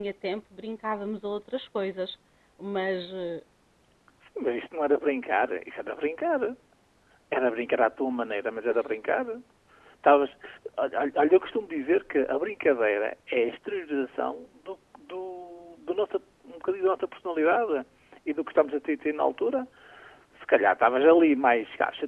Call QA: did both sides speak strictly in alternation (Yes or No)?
Yes